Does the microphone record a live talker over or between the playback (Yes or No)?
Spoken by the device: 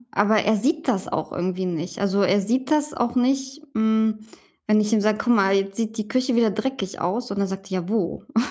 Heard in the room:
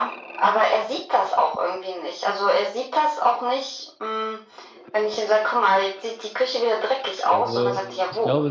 Yes